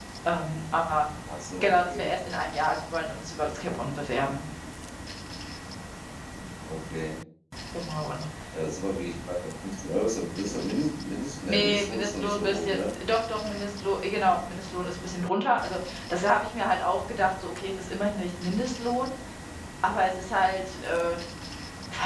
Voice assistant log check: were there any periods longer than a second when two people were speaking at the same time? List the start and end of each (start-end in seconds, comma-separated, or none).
11.5-12.8